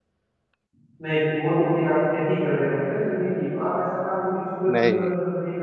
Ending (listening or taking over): listening